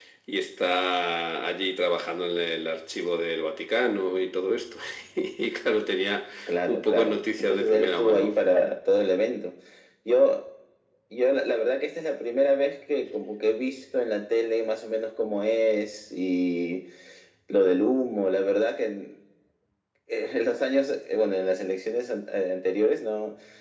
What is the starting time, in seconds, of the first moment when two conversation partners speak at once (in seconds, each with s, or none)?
6.7 s